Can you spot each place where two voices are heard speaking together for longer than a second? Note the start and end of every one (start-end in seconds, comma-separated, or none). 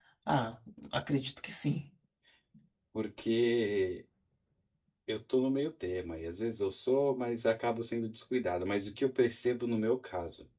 none